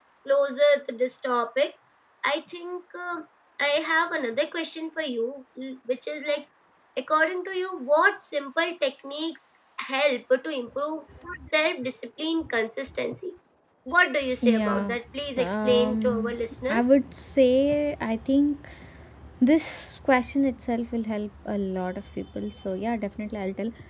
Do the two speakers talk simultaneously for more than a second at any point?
Yes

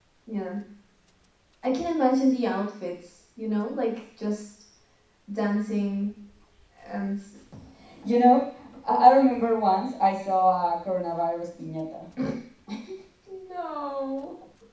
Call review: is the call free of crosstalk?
Yes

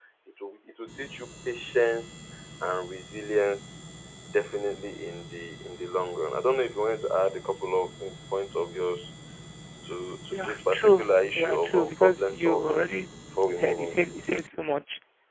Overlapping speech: Yes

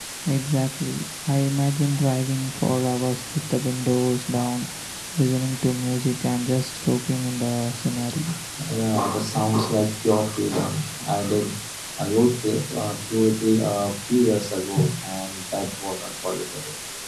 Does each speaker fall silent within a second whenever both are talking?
Yes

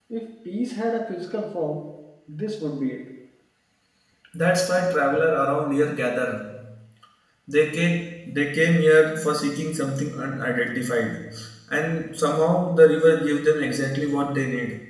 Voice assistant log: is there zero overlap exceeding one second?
Yes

